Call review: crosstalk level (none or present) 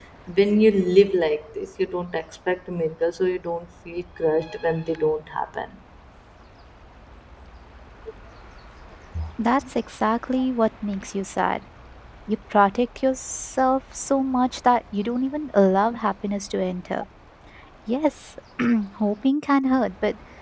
none